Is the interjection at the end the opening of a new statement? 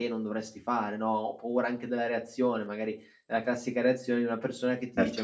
No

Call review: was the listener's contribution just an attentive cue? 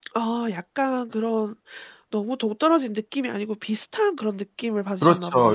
No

